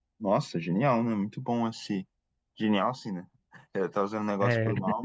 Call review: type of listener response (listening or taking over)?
listening